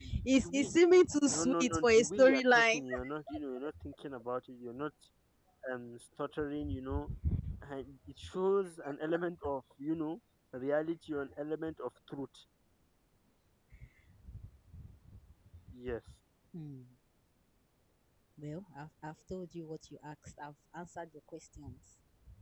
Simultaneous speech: Yes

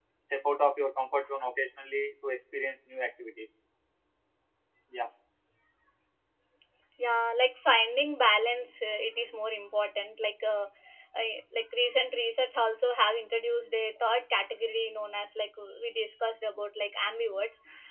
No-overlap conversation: Yes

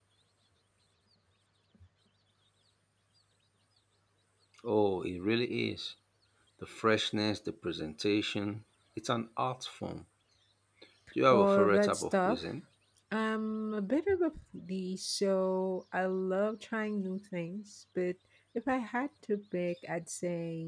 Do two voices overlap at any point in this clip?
Yes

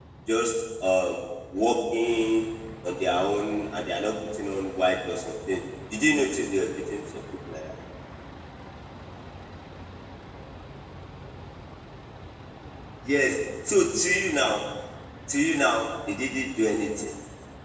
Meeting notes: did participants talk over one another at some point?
No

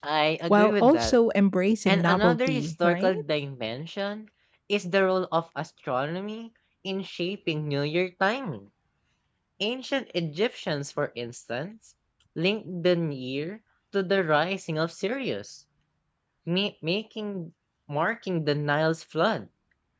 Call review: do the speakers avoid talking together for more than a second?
No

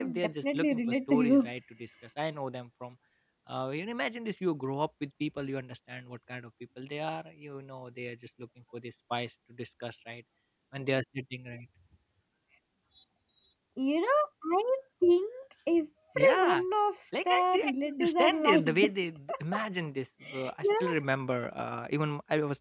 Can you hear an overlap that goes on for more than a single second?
Yes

